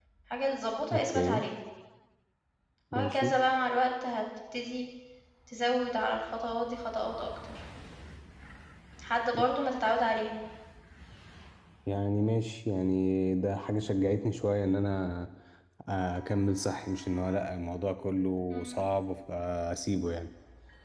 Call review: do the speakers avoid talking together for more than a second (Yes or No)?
Yes